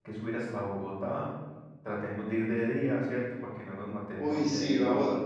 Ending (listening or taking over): taking over